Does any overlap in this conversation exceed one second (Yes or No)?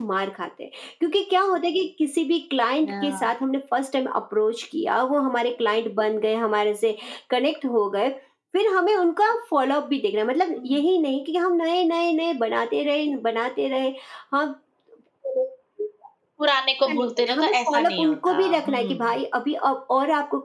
Yes